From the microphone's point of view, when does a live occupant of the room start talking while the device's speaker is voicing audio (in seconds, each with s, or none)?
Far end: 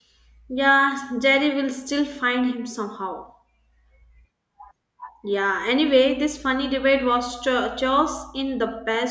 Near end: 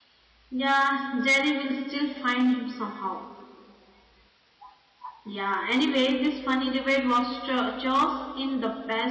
none